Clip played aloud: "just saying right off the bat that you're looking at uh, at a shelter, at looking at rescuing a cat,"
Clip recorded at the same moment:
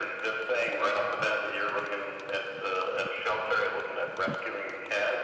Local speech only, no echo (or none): none